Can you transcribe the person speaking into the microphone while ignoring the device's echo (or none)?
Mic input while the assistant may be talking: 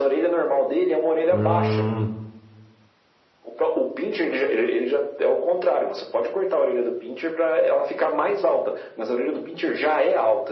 hum,